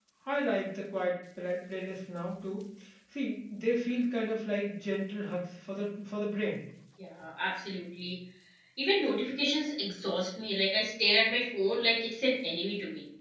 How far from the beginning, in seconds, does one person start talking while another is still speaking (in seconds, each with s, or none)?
none